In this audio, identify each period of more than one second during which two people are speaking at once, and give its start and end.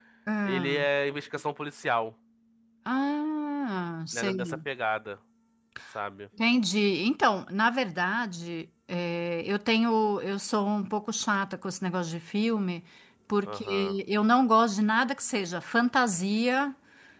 none

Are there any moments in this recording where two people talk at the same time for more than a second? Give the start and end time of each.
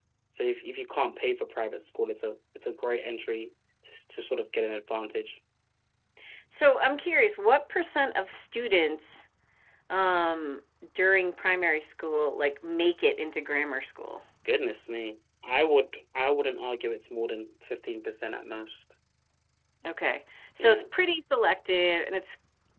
none

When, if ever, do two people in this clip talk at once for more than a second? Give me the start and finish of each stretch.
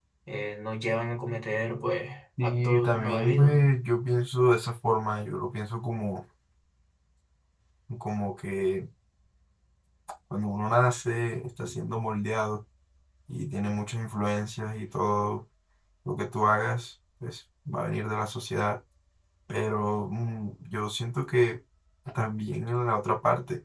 2.4-3.7

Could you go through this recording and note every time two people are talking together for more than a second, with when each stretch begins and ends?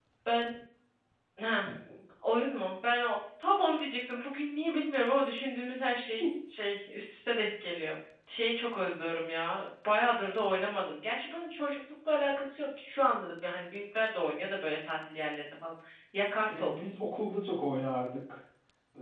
none

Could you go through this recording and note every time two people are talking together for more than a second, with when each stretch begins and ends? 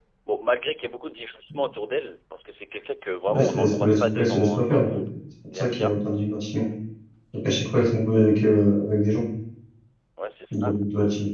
3.3-5.0

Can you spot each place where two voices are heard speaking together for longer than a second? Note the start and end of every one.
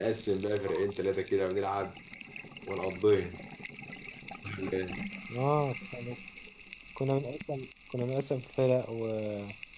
none

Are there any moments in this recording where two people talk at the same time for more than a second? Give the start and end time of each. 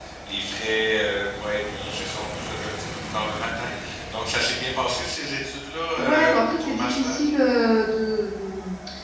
6.0-7.2

